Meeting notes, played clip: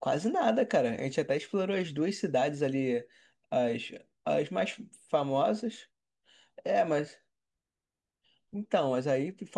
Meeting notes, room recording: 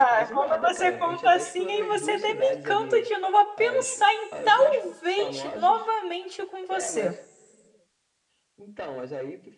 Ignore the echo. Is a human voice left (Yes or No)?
Yes